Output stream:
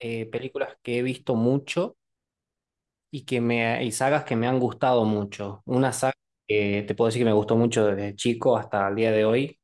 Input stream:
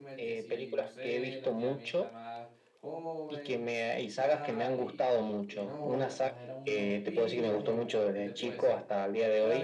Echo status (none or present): present